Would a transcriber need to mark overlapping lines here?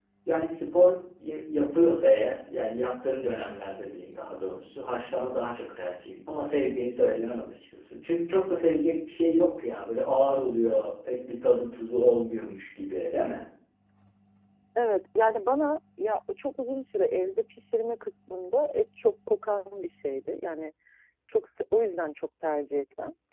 No

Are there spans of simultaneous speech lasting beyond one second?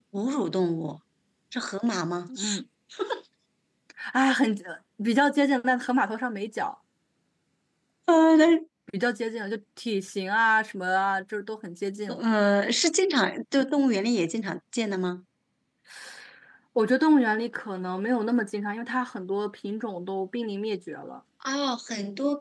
No

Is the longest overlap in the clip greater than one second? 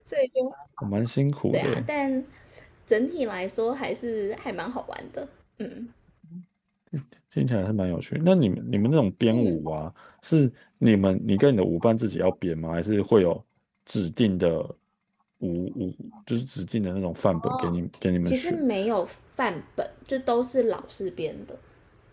No

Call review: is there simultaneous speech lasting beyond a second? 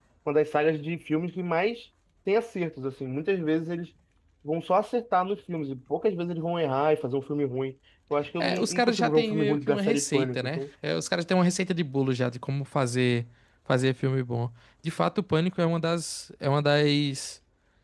Yes, from 8.4 s

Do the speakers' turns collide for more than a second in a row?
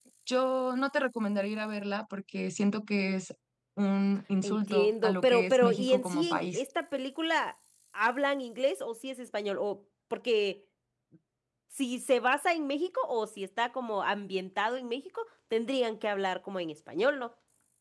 Yes, from 4.4 s

